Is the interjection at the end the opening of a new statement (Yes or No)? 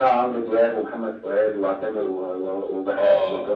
Yes